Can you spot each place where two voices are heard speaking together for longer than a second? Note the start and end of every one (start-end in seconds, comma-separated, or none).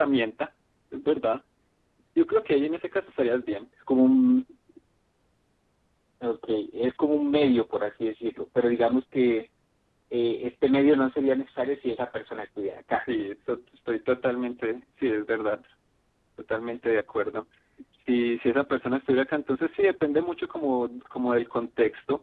none